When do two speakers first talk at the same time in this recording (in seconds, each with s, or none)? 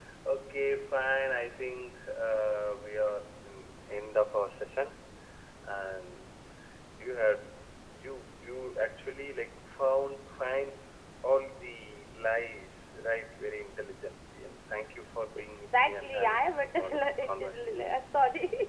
15.5 s